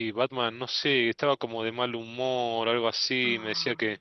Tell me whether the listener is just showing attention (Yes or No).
Yes